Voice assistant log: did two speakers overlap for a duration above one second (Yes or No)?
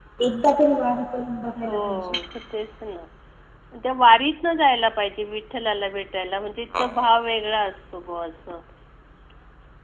No